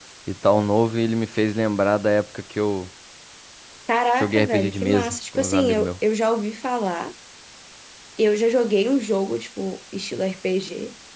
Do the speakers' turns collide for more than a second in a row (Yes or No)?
Yes